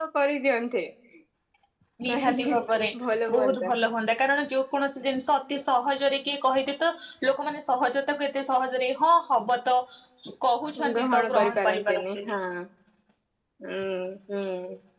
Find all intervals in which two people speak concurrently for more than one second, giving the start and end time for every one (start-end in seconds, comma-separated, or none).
10.9-12.3